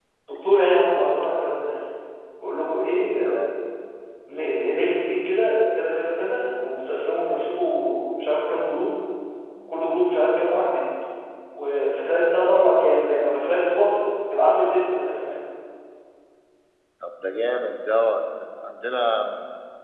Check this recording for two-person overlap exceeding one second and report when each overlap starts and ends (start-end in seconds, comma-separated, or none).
none